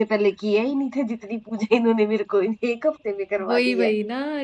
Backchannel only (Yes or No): No